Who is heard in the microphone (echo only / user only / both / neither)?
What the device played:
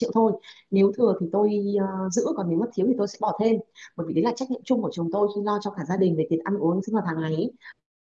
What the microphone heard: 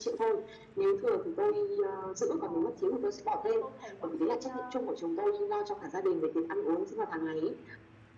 both